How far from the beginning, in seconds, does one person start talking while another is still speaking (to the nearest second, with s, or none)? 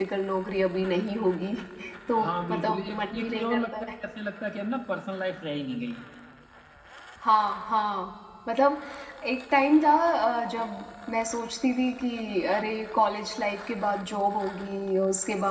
2 s